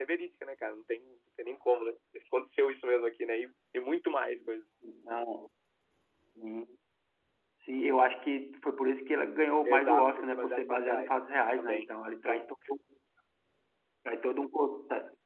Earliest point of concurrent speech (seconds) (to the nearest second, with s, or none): 10 s